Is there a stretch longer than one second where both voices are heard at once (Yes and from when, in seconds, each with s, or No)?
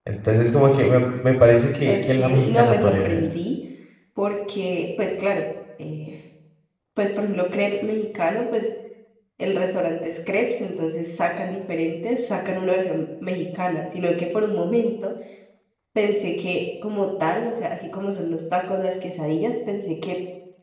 Yes, from 1.9 s